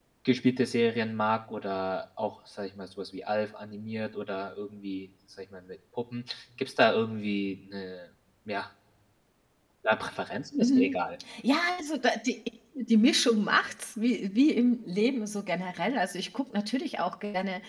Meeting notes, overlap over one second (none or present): none